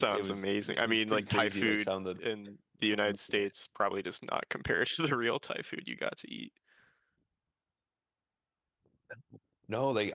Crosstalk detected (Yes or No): Yes